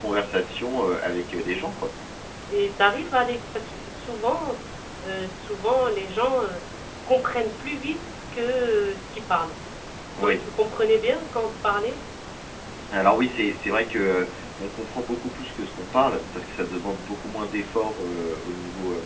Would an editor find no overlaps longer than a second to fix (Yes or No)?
Yes